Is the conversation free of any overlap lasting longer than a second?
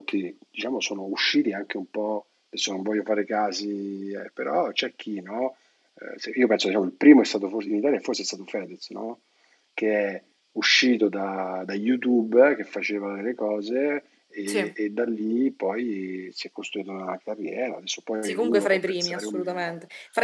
No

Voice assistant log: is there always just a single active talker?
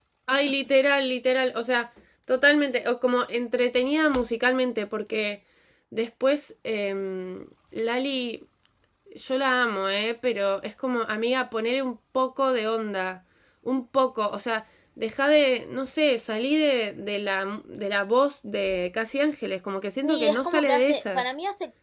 No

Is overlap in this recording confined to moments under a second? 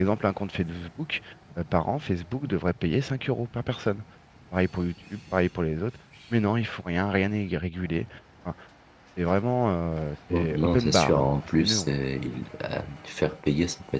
No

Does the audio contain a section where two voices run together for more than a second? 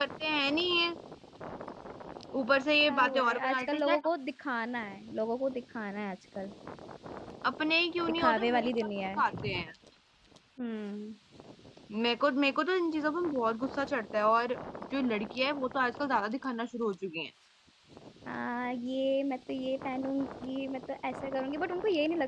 Yes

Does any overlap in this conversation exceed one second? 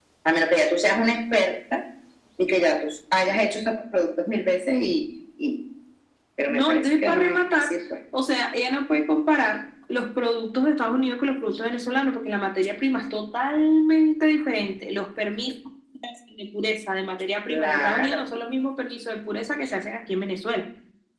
Yes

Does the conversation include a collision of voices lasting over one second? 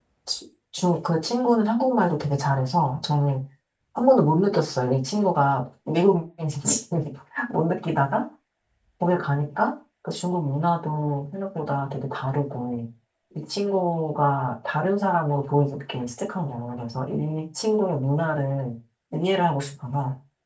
No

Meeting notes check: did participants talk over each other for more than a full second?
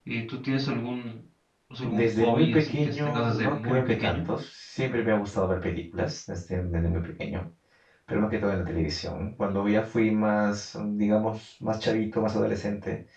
Yes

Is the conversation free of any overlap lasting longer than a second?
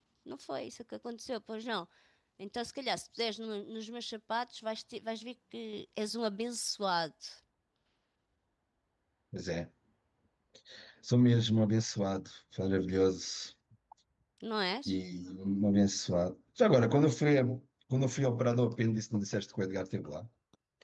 Yes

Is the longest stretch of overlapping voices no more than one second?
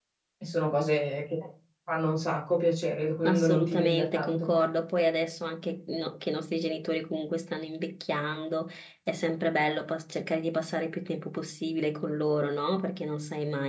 No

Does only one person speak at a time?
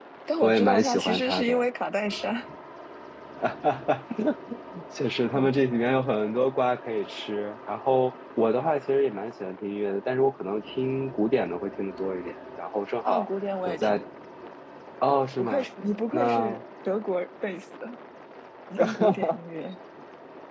No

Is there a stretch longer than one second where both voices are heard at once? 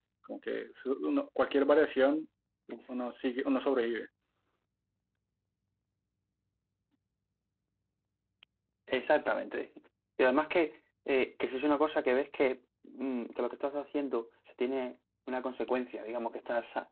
No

